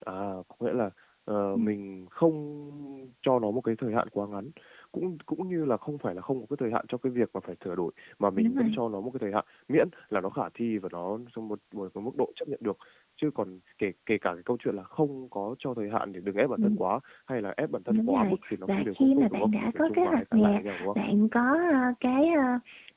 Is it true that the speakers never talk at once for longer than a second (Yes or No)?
No